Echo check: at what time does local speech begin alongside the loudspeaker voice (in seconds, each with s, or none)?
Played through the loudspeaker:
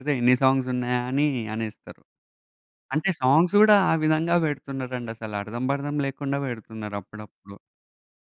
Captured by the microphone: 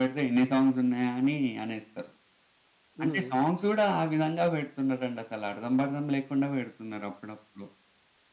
3.0 s